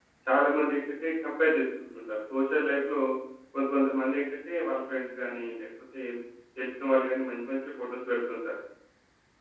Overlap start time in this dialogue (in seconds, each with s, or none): none